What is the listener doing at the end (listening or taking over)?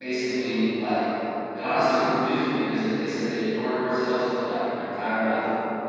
listening